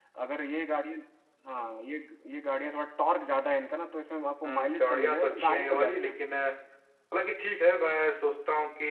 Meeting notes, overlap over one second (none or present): present